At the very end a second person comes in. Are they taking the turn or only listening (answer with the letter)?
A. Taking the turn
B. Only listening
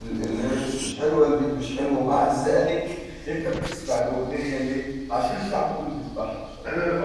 A